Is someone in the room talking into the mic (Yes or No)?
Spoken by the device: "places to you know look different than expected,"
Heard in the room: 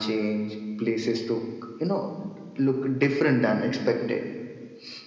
No